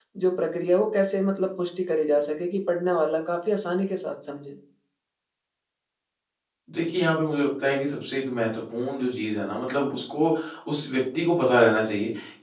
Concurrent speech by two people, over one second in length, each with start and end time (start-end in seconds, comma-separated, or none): none